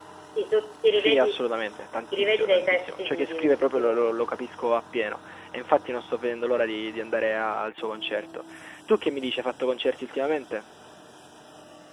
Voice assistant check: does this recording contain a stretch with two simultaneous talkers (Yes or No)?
Yes